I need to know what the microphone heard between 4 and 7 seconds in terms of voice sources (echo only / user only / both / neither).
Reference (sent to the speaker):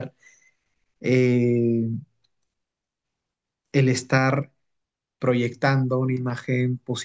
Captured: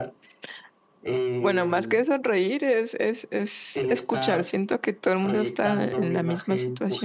both